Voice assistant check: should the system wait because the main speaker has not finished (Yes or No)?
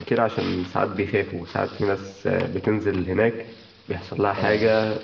Yes